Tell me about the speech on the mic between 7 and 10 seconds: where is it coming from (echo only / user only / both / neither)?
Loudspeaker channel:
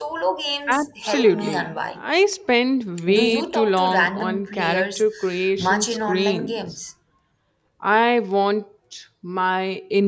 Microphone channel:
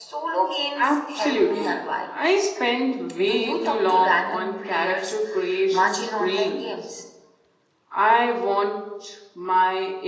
echo only